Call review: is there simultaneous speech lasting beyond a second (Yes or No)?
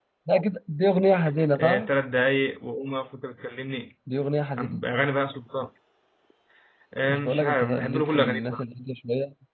Yes